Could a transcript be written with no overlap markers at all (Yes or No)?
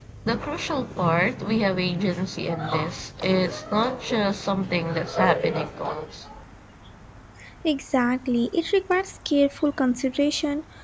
Yes